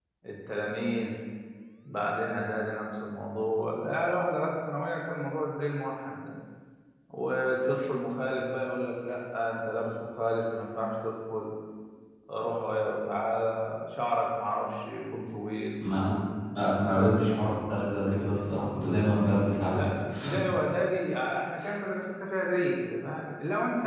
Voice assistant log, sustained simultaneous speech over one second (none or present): none